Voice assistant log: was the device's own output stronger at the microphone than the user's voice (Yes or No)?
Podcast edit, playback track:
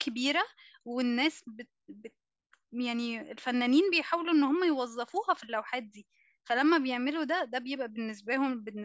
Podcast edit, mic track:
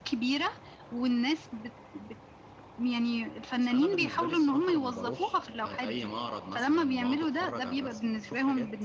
Yes